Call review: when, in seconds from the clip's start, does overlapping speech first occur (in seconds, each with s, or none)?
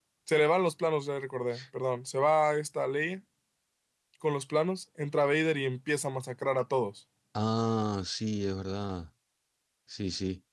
none